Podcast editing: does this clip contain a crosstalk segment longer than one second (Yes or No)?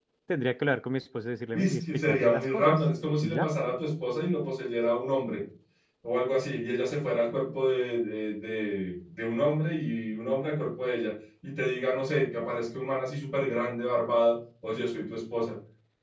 Yes